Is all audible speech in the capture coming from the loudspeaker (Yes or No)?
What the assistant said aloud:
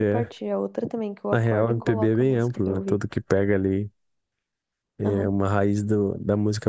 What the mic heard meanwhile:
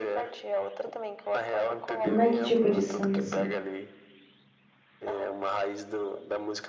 No